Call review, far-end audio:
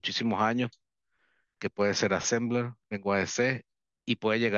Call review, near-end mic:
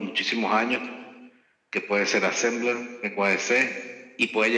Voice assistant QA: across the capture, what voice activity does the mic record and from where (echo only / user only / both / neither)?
echo only